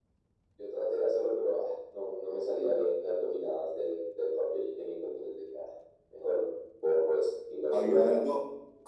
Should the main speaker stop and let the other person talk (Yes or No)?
Yes